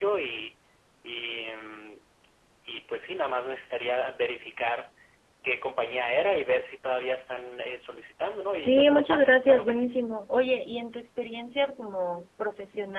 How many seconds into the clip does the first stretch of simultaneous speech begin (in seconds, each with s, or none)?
8.6 s